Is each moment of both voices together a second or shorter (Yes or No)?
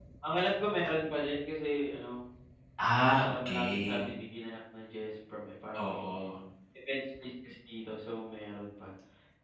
No